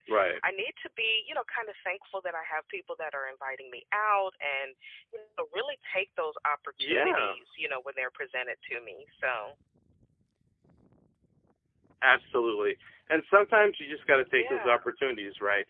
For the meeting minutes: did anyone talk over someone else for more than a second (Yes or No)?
No